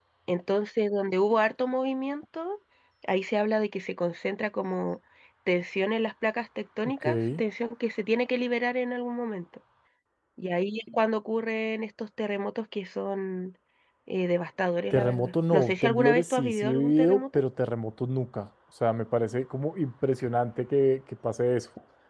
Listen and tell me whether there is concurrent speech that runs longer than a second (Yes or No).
Yes